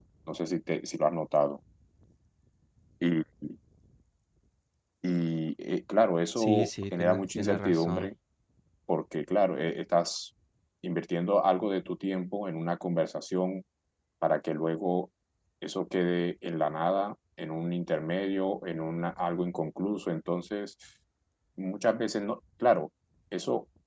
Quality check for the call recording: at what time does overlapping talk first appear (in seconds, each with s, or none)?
6.4 s